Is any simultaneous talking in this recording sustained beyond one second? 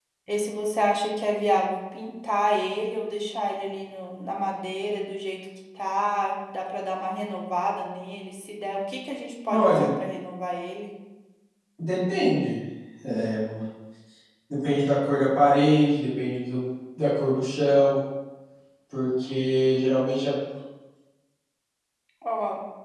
No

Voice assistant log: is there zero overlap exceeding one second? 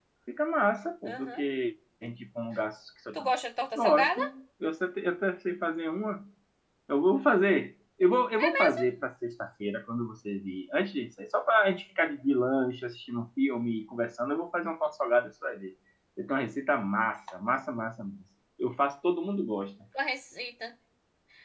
Yes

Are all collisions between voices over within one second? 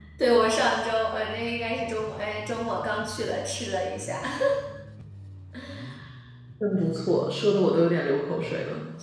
Yes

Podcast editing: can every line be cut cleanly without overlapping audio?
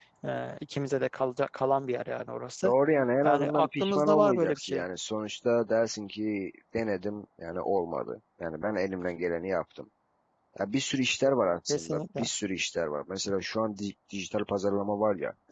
No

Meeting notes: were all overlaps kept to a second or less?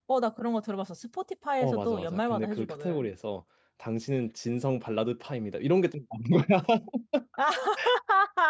No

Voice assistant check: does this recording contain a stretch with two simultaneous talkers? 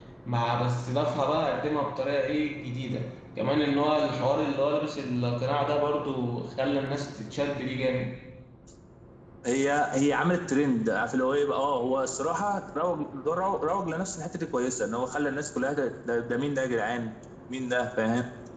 No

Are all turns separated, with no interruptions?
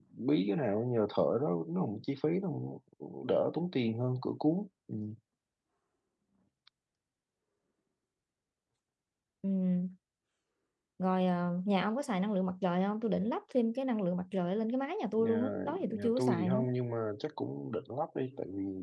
No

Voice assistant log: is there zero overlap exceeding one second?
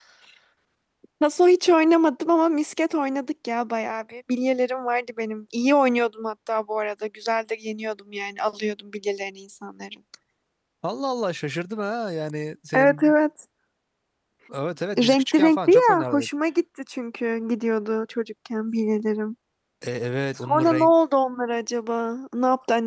No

